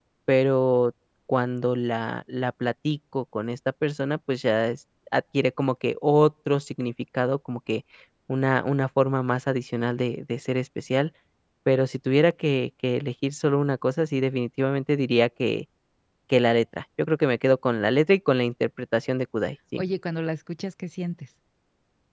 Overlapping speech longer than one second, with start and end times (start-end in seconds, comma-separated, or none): none